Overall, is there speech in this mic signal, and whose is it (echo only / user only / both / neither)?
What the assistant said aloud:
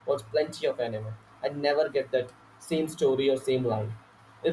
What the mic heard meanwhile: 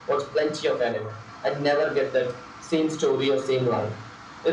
echo only